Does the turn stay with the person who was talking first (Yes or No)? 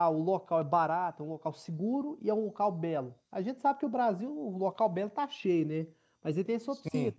Yes